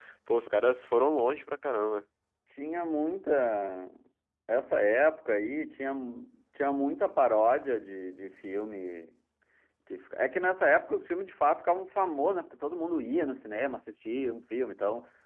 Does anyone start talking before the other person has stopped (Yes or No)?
No